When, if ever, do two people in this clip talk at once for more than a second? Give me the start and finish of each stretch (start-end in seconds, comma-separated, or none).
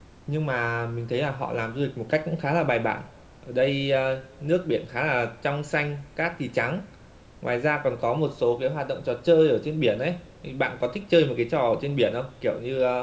none